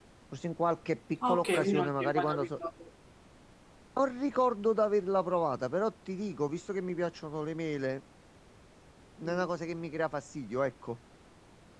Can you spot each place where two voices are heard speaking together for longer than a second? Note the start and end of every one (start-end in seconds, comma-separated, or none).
1.2-2.5